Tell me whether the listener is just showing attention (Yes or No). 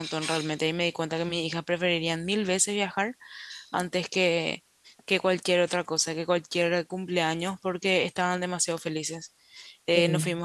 Yes